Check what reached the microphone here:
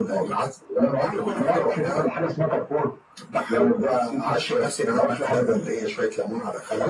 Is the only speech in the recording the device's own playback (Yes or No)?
Yes